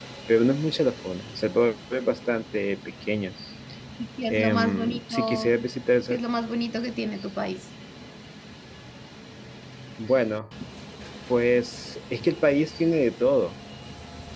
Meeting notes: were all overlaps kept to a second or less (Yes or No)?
No